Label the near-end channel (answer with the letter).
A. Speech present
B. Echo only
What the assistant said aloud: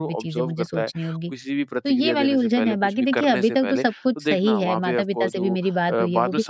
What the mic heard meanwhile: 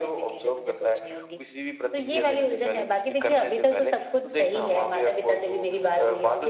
B